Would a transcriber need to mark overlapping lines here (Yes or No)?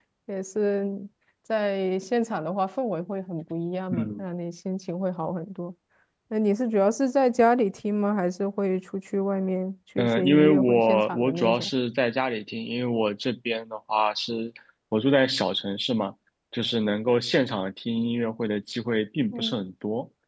Yes